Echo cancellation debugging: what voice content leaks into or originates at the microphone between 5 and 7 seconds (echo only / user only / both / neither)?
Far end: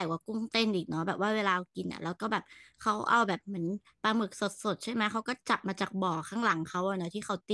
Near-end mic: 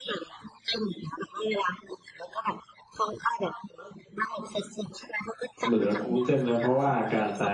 both